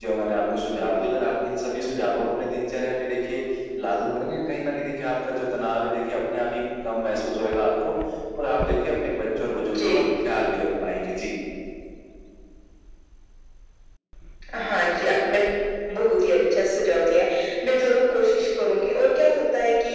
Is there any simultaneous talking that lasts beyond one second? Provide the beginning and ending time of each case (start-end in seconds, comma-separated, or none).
none